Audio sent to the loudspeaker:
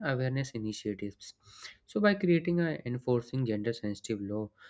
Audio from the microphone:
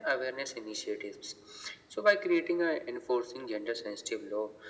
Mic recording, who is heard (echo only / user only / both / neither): echo only